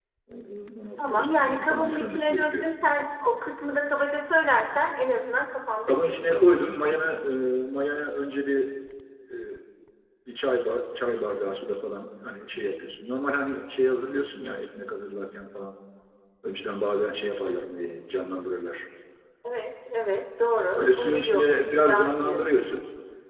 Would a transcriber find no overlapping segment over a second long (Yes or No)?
No